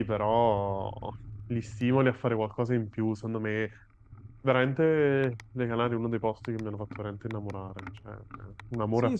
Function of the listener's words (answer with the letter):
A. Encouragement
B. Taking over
B